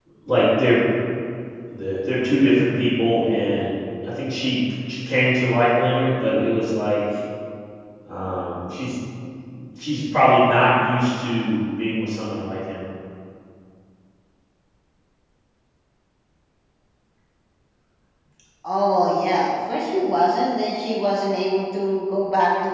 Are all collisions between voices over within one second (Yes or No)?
Yes